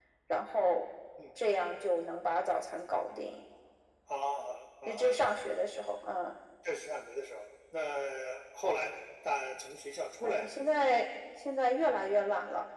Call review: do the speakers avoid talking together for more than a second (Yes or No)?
Yes